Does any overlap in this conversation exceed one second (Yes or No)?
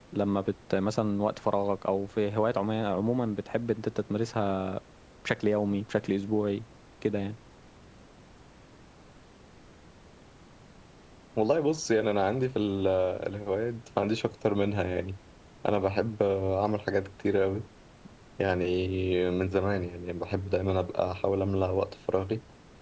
No